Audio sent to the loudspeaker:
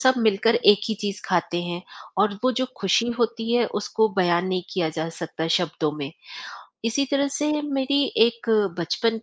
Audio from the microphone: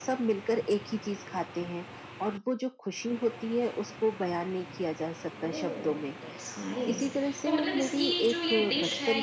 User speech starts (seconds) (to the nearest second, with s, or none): 5 s